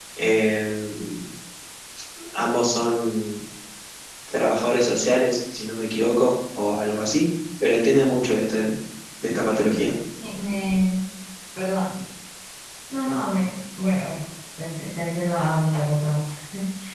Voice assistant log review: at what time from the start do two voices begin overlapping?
none

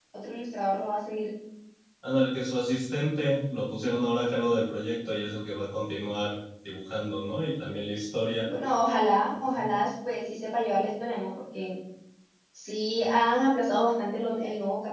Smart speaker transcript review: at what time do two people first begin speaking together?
none

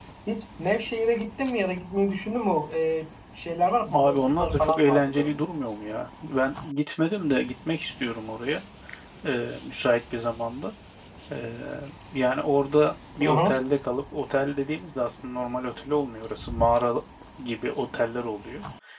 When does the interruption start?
3.9 s

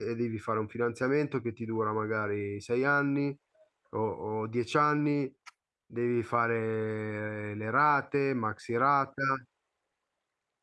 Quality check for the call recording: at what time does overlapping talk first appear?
none

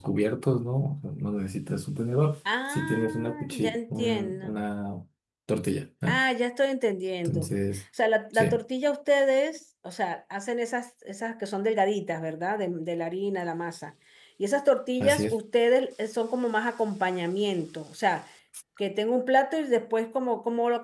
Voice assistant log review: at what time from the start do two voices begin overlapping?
2.7 s

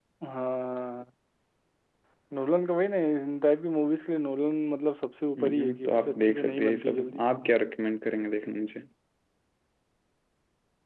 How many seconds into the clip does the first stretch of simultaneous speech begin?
5.4 s

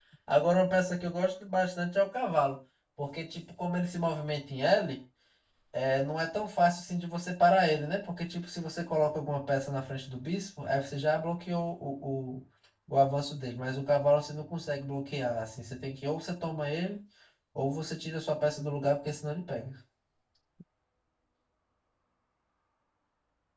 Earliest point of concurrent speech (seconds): none

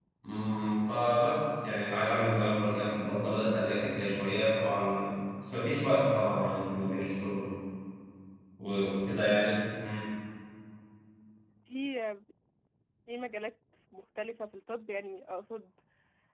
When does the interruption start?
none

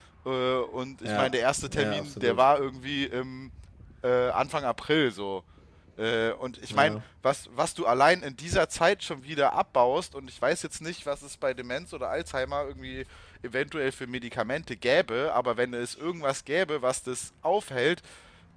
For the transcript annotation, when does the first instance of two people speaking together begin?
1.0 s

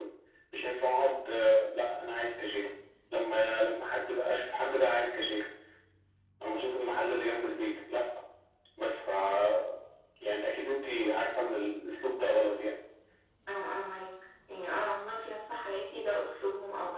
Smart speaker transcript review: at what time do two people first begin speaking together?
none

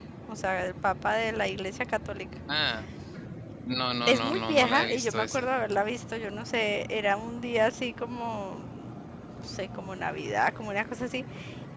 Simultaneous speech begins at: 4.1 s

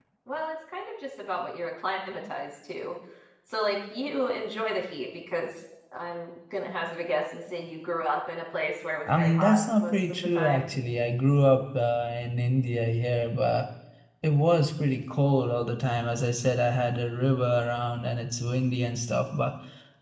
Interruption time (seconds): 9.1 s

